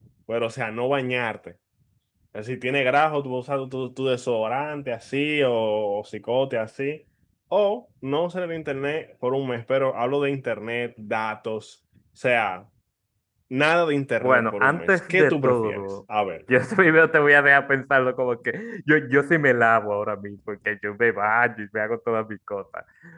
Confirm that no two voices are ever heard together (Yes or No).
No